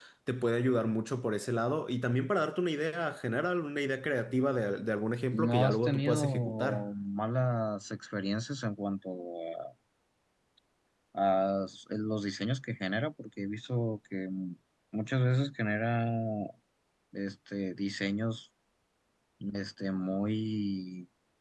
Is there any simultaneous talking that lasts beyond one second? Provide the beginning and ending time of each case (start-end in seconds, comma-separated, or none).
5.3-6.9